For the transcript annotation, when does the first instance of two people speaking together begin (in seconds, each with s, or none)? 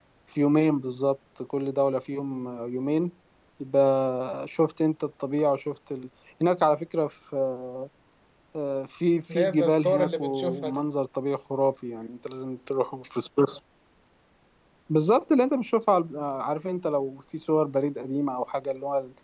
9.3 s